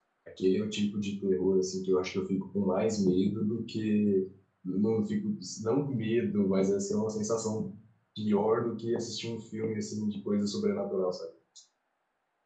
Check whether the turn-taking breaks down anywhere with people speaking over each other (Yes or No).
No